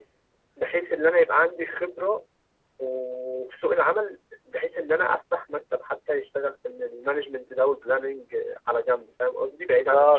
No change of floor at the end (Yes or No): No